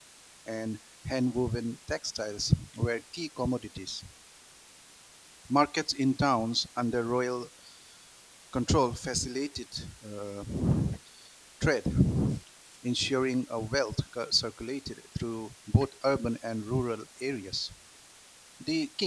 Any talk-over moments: No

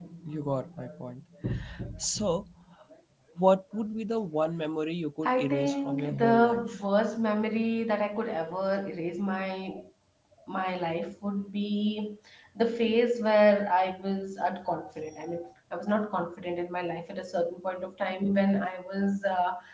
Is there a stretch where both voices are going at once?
Yes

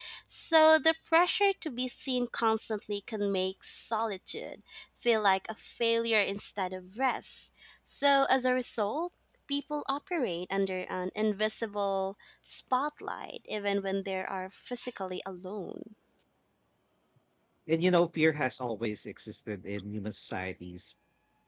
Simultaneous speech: No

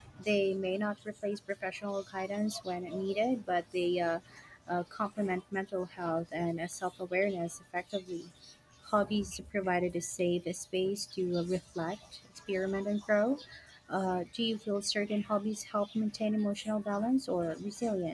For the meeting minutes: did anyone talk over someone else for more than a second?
No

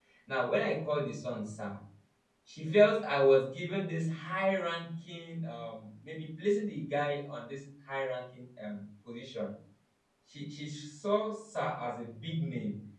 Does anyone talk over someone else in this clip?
No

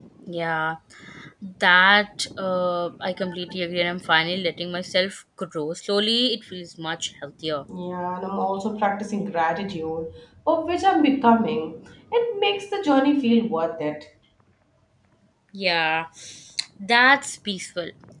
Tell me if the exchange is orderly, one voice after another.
Yes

